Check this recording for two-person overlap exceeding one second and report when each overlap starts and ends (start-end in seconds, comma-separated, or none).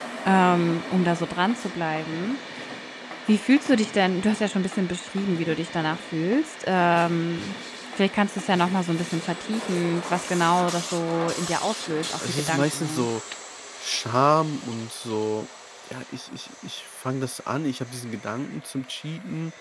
11.9-13.1